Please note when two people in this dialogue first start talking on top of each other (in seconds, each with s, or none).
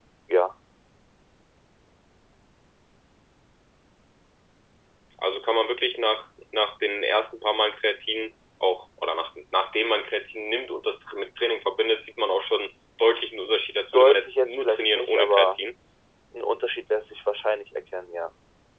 13.9 s